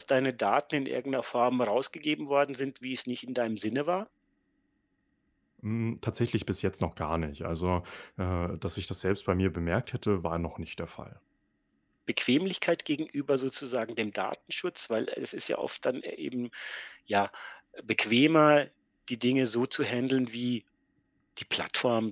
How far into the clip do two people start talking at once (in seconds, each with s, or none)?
none